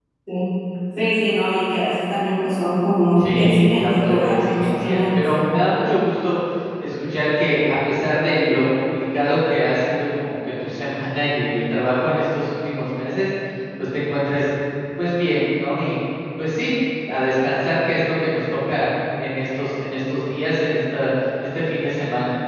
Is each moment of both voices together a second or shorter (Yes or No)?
No